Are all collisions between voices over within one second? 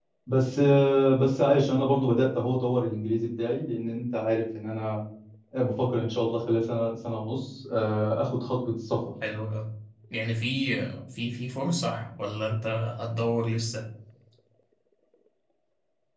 Yes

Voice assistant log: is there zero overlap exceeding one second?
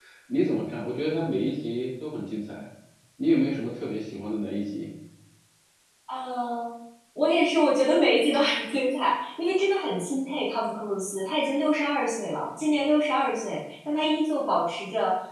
Yes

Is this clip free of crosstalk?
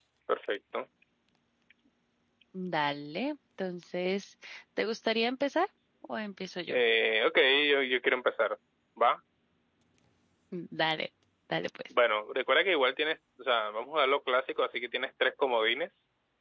Yes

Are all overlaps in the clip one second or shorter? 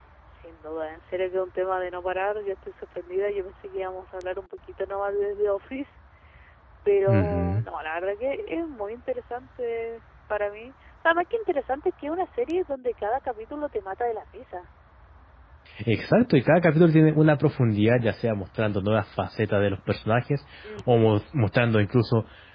Yes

